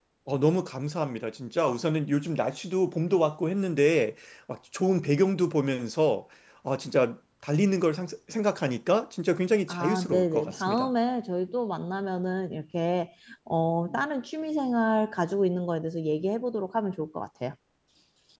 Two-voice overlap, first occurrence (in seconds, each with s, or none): 9.7 s